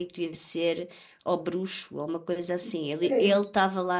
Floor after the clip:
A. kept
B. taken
A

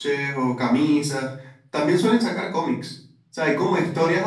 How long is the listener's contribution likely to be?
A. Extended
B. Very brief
B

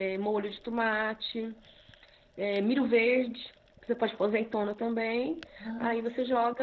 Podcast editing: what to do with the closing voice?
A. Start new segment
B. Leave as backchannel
B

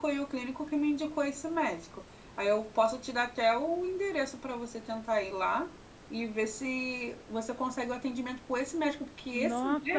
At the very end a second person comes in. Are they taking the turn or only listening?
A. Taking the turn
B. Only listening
A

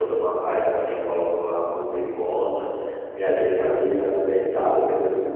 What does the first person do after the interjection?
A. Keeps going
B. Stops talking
A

